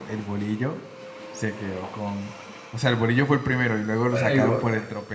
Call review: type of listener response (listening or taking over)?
listening